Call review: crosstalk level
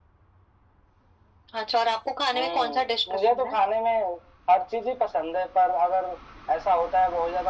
present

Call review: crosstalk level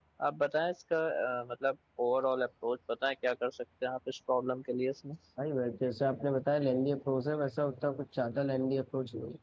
none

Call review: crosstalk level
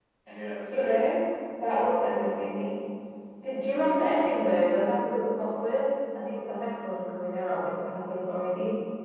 present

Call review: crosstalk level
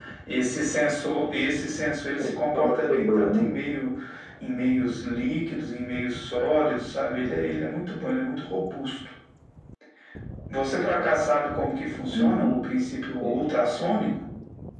present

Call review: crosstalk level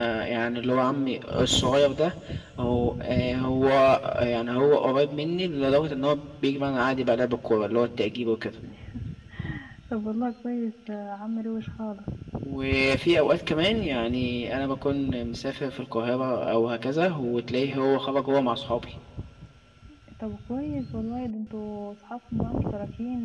none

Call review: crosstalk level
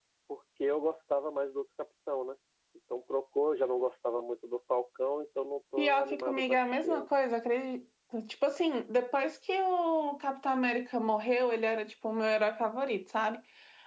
present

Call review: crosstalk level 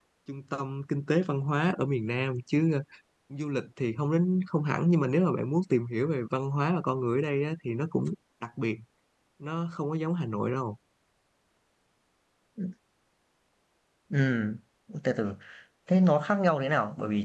none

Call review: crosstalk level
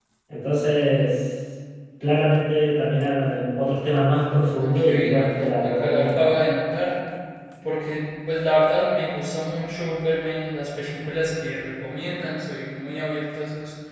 present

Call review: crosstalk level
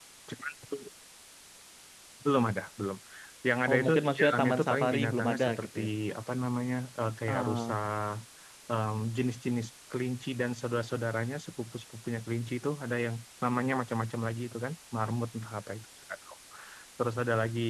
present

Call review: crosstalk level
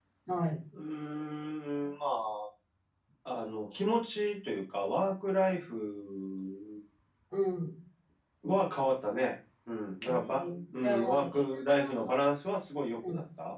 present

